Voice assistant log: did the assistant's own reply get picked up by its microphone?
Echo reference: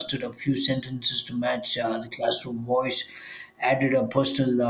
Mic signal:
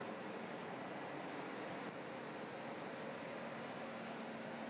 No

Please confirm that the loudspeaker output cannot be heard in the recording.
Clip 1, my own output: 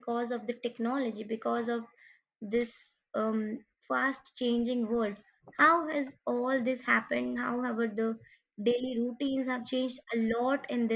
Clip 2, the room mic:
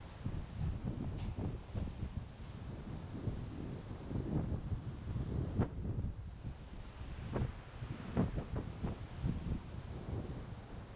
Yes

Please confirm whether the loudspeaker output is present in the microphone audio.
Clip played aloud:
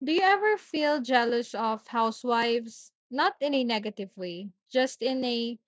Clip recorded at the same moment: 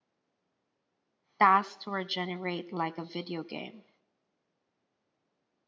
No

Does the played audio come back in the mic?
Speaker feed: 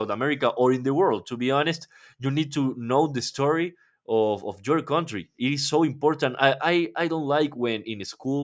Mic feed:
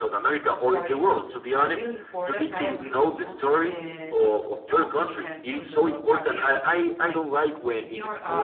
Yes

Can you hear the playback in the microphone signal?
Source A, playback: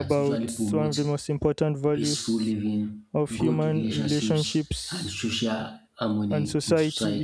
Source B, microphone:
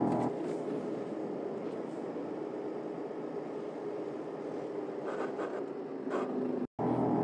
No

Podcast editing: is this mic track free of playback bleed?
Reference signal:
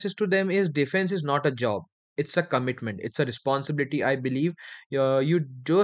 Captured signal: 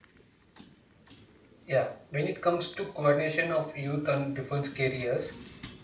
Yes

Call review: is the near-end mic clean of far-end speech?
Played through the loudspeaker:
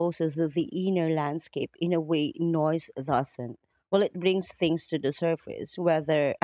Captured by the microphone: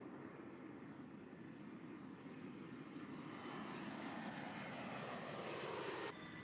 Yes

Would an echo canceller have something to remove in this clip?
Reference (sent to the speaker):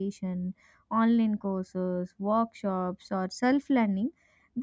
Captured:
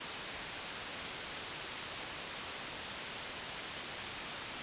No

